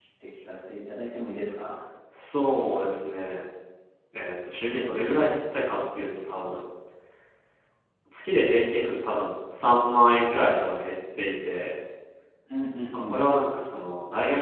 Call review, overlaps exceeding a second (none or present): none